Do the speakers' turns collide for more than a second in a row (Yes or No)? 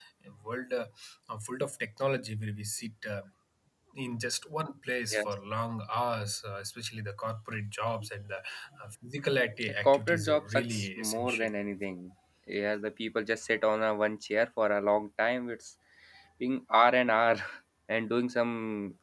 Yes